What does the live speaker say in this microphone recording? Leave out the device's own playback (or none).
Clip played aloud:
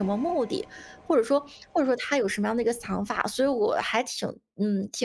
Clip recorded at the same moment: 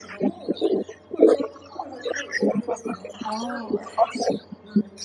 哦，